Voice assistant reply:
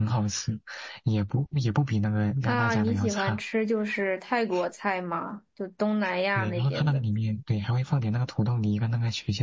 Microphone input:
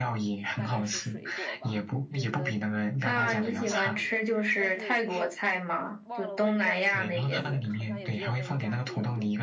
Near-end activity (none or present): present